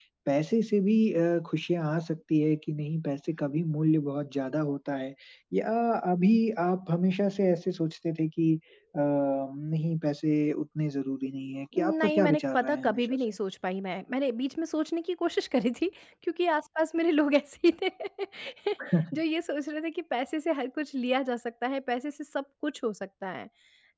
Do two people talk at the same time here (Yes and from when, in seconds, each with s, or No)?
Yes, from 11.7 s